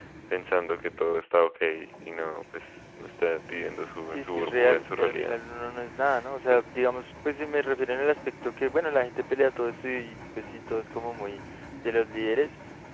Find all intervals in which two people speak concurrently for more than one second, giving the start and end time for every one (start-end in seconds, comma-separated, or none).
4.1-5.4